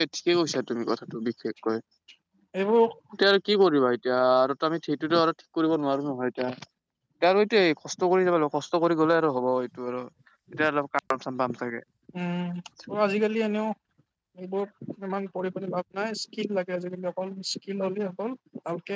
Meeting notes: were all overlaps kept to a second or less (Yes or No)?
Yes